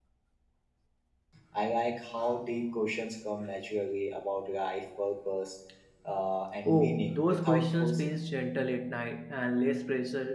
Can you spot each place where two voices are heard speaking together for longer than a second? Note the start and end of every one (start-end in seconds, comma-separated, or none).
6.7-8.1